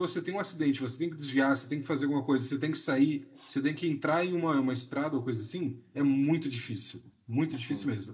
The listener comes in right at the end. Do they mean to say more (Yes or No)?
No